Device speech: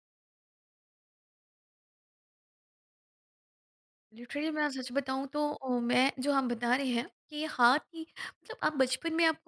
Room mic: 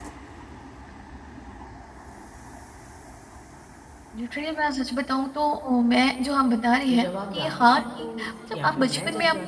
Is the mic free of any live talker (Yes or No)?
No